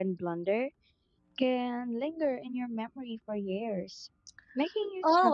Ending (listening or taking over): taking over